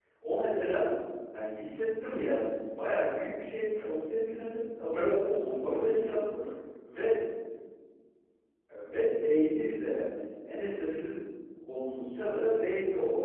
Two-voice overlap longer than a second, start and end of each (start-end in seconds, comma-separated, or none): 4.9-6.5